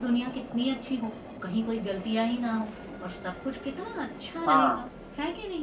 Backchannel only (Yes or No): Yes